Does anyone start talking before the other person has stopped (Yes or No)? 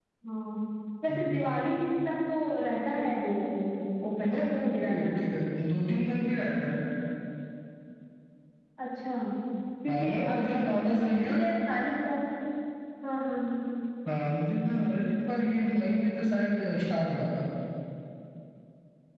Yes